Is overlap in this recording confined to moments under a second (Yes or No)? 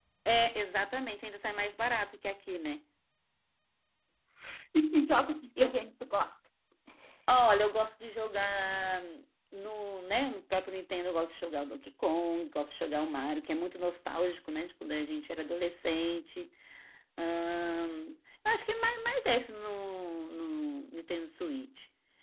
Yes